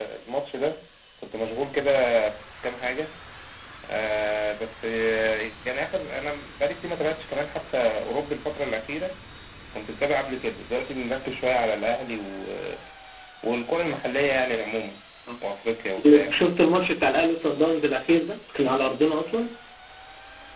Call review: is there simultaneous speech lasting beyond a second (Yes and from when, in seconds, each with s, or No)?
No